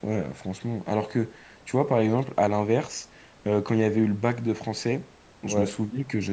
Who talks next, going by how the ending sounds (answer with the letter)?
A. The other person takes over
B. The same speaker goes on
B